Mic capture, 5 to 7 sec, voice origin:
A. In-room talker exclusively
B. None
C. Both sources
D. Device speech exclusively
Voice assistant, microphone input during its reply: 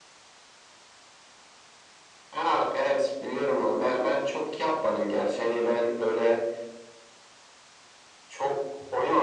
D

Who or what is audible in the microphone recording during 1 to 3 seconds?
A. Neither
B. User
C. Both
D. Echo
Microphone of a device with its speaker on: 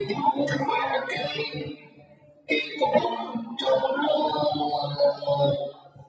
D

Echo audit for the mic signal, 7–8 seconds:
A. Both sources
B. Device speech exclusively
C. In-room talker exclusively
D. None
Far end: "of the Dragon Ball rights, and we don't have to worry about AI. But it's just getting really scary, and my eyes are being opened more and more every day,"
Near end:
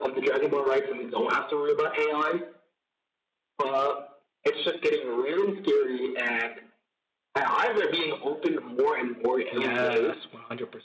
B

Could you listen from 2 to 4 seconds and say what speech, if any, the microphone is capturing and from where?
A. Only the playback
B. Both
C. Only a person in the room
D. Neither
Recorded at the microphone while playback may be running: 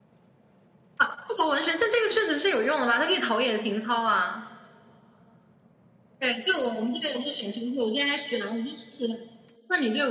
A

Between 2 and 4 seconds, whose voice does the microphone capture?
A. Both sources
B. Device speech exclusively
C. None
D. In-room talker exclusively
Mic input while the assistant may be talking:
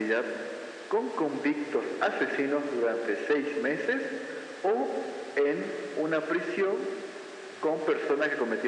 B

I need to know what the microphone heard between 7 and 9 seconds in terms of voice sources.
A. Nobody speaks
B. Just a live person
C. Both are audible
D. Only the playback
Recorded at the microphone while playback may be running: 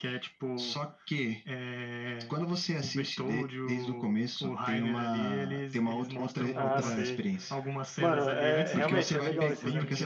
C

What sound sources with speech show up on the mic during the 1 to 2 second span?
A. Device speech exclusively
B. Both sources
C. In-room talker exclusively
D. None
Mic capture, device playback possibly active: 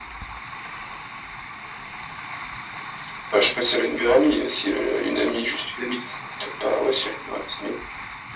D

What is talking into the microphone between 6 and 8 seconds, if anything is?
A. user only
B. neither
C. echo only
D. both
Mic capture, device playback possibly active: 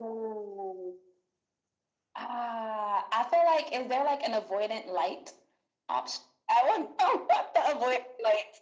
C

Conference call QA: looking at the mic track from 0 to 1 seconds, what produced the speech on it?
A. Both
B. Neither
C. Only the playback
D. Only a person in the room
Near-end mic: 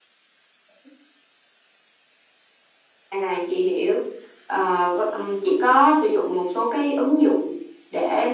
B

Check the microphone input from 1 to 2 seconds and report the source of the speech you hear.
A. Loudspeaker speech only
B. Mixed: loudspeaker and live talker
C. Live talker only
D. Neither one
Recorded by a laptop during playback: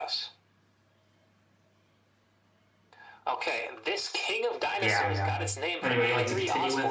D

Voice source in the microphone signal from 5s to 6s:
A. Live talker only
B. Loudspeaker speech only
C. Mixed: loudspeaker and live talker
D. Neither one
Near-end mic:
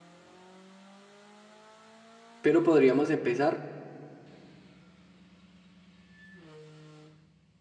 D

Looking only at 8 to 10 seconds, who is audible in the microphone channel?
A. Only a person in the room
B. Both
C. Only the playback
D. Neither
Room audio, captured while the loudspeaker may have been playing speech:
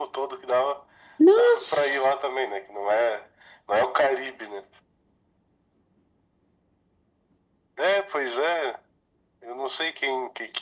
C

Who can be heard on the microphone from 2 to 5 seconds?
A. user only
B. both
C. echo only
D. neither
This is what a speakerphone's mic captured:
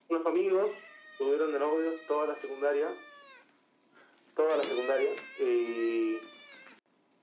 C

